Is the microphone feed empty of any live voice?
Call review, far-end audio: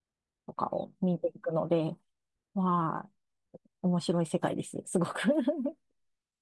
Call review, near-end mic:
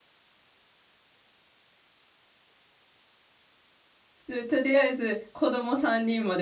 No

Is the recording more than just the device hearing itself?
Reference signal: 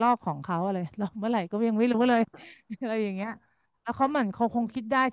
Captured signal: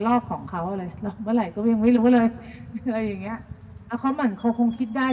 No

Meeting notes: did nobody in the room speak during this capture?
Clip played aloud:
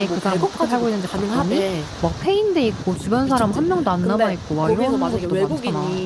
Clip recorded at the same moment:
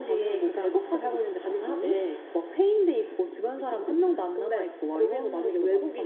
Yes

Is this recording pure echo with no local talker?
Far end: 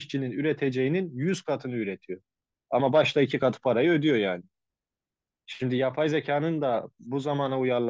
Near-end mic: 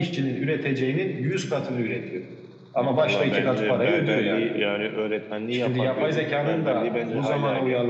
No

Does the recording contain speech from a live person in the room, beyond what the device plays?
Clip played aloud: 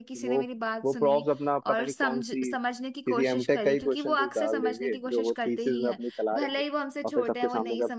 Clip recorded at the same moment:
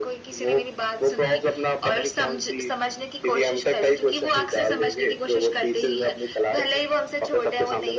No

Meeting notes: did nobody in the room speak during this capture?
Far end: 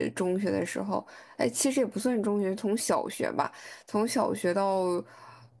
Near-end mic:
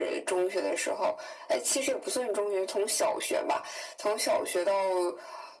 Yes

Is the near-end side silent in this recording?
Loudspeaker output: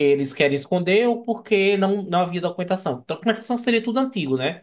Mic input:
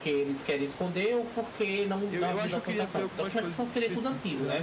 No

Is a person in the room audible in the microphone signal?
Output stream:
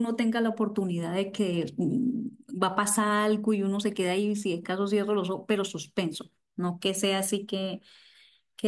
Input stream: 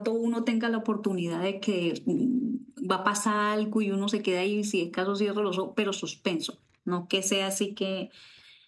No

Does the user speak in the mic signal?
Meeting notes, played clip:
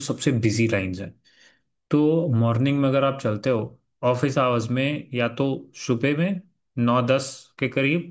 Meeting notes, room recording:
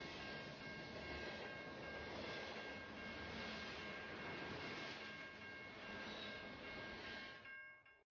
No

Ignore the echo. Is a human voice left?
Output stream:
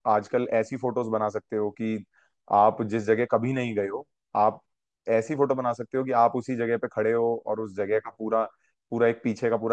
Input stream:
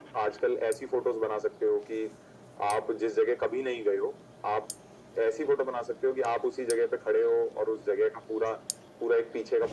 No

